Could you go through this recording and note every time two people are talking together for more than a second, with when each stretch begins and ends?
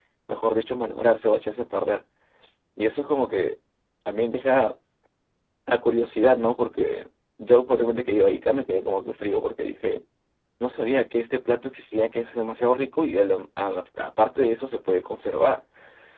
none

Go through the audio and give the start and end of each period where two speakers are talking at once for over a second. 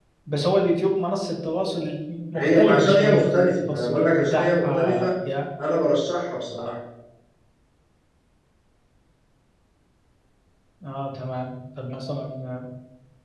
2.4-5.1

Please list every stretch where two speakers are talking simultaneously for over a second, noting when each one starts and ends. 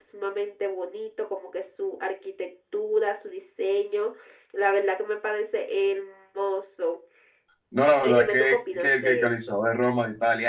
8.0-9.3

